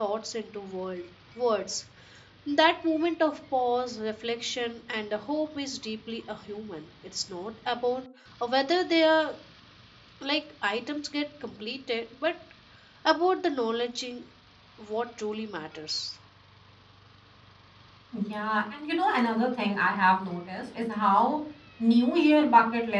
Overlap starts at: none

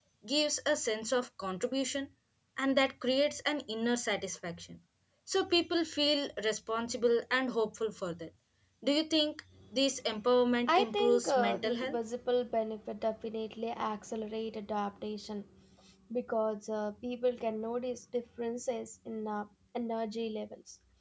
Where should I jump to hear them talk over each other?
10.7 s

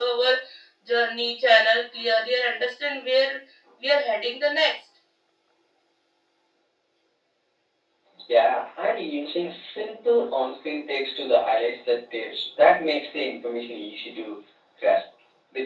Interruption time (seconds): none

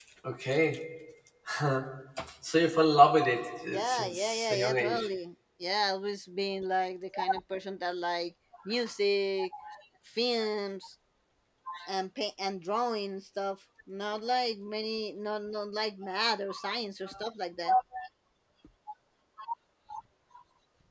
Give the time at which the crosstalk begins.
3.7 s

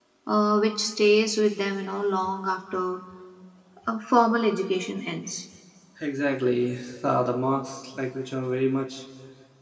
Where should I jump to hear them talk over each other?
none

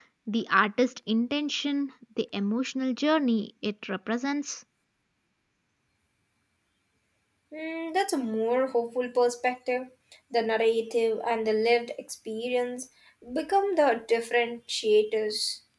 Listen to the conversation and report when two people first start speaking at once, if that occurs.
none

